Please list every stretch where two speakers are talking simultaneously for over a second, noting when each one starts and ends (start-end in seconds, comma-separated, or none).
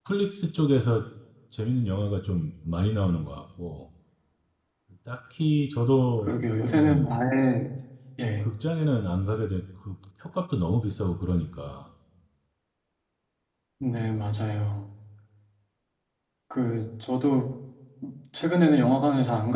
none